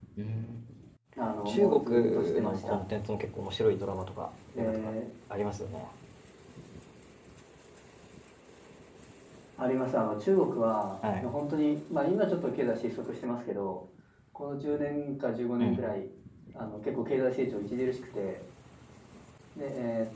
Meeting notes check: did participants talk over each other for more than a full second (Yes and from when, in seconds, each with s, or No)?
Yes, from 1.4 s